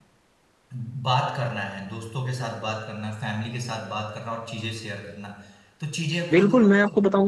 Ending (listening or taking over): taking over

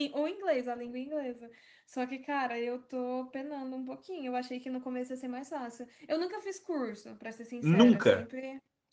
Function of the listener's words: listening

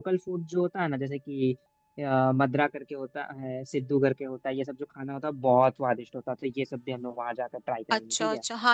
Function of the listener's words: taking over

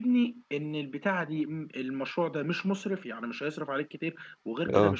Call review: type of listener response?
listening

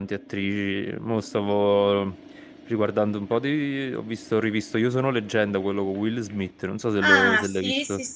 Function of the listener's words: taking over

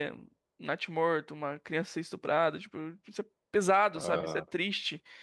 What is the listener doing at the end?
listening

